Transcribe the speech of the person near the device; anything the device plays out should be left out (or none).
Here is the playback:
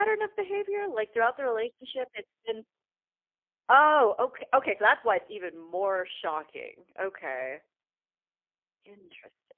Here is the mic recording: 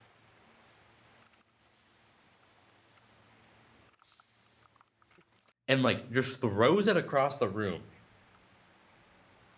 and, like, just throws it across the room,